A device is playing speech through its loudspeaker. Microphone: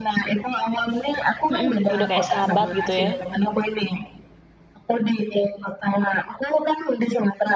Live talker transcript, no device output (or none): Mhm, udah kayak sahabat gitu, ya.